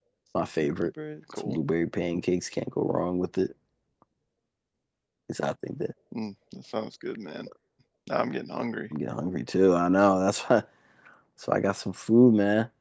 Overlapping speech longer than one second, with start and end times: none

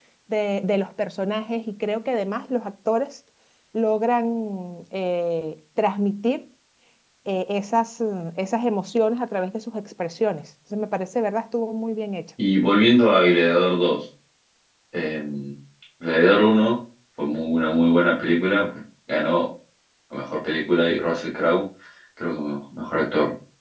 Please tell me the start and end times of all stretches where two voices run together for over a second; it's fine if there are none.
none

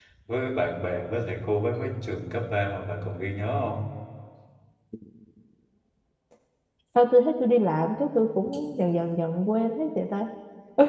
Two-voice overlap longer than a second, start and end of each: none

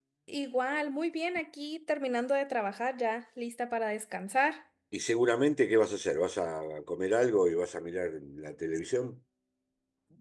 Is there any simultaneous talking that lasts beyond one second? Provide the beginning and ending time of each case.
none

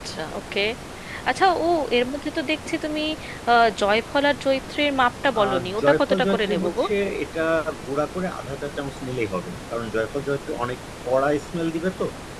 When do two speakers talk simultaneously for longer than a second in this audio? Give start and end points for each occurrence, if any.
5.4-6.8

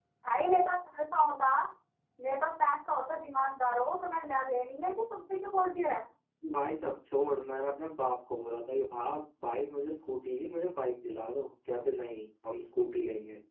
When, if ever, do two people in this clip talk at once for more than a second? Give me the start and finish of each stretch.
none

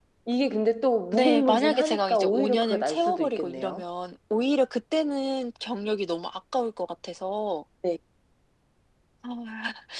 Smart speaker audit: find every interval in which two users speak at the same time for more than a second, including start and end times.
1.1-3.8

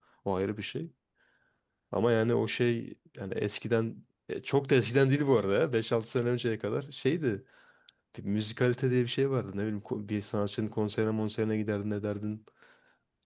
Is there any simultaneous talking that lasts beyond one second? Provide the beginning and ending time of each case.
none

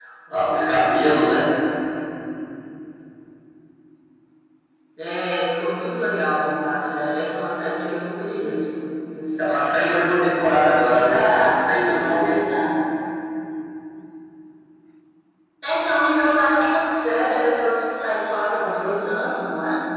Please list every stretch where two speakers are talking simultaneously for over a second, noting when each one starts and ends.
10.8-12.4

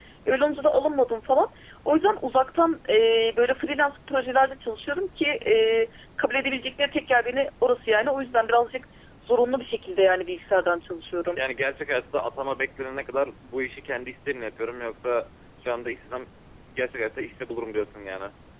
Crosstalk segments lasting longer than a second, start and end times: none

